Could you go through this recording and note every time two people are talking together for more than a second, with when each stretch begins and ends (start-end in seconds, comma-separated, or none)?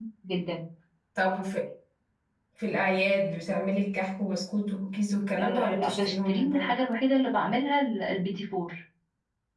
5.4-6.8